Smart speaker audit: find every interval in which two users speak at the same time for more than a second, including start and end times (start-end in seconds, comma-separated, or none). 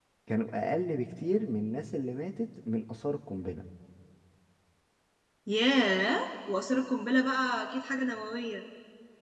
none